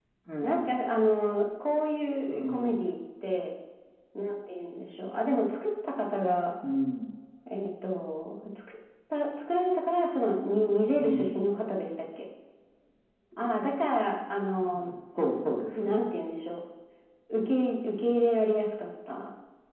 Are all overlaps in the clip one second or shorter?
Yes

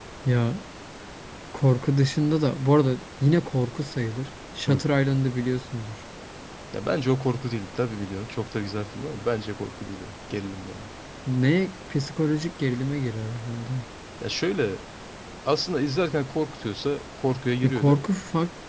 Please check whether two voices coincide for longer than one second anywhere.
No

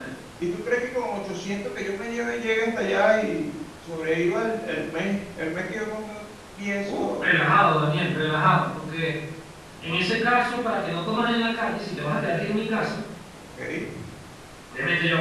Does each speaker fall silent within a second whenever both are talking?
Yes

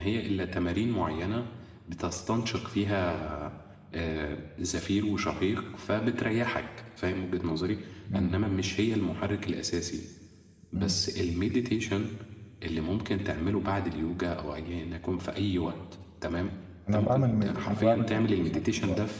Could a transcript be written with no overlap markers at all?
No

